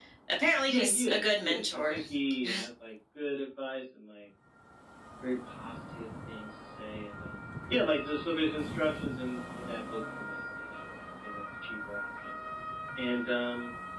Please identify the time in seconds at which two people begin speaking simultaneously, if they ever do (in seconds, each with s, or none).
0.7 s